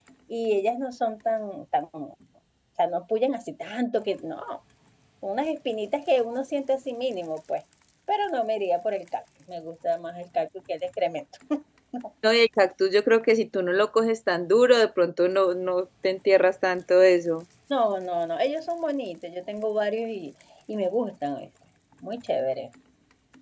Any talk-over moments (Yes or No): No